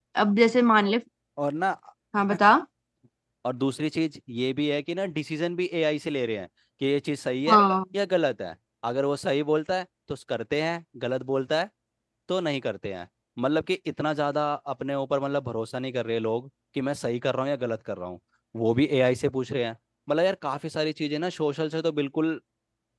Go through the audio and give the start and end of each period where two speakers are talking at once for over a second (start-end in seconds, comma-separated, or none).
none